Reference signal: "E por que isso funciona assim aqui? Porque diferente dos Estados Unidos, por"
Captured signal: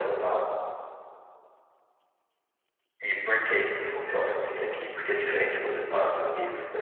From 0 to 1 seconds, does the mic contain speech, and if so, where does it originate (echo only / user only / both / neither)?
echo only